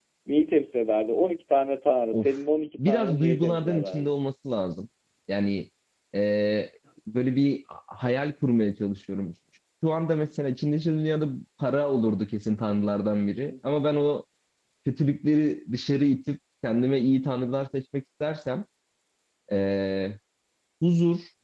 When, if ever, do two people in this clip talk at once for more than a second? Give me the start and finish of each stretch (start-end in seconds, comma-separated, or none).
2.8-4.1